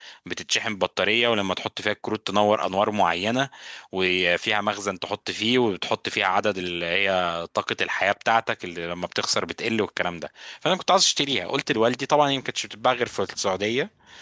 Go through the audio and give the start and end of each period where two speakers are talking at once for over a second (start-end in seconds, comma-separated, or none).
none